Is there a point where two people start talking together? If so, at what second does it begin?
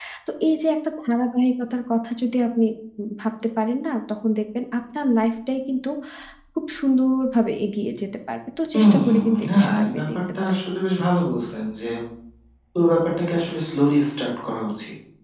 9 s

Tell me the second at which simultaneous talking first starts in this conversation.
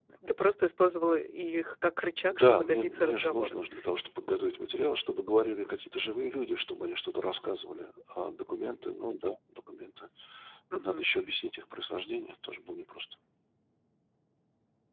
2 s

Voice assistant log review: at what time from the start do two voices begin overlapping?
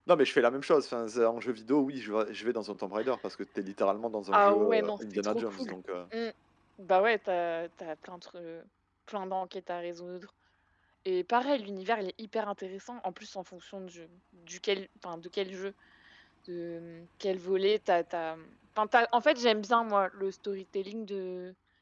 4 s

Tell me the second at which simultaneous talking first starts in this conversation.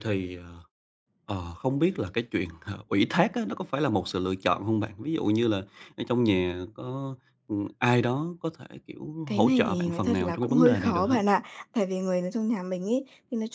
9 s

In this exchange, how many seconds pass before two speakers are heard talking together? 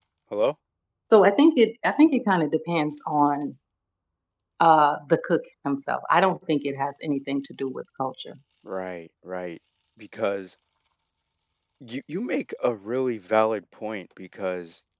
none

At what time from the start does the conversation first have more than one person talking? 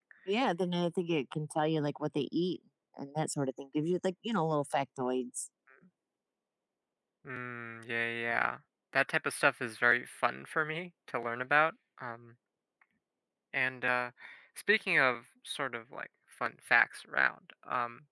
none

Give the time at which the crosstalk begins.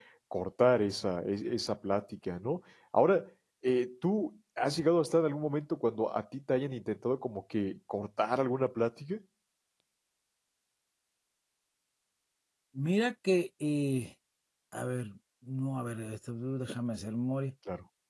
none

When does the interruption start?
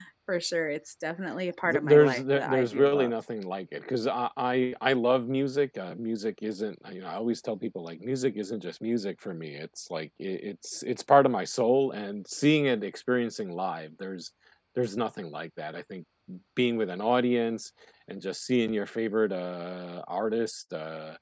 2 s

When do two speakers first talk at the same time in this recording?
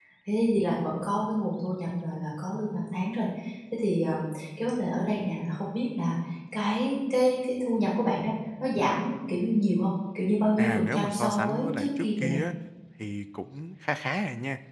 11 s

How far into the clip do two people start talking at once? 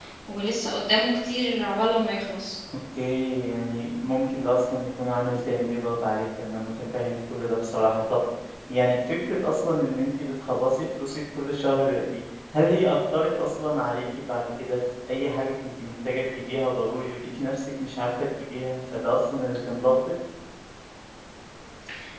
none

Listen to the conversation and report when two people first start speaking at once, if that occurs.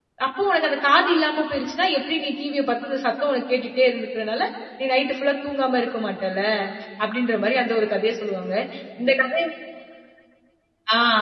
none

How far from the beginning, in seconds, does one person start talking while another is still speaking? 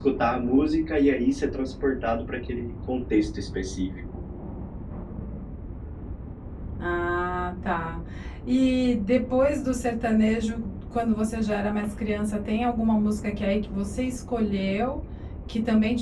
none

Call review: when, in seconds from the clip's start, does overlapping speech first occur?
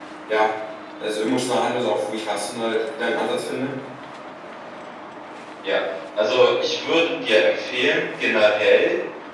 none

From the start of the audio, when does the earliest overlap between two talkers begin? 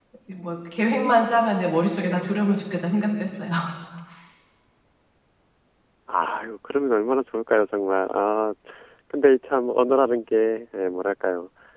none

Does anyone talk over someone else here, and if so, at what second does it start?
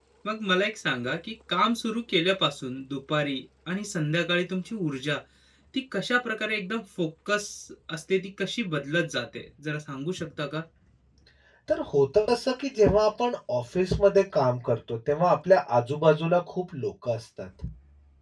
none

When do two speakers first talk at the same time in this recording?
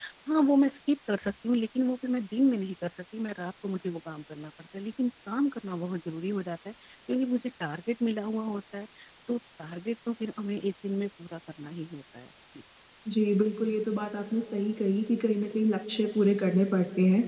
none

